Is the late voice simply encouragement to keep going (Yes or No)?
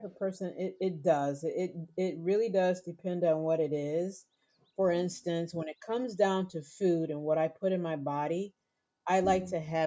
Yes